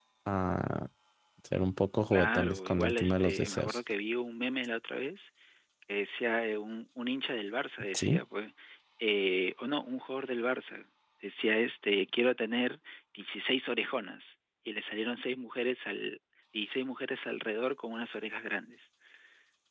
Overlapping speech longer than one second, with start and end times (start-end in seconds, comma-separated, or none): 2.1-3.8